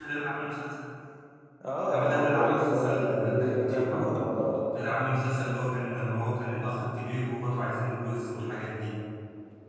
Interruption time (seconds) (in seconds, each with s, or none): 1.8 s